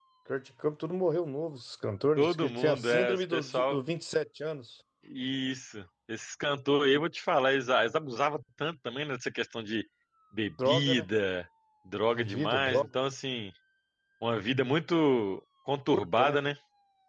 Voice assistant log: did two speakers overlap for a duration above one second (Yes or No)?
Yes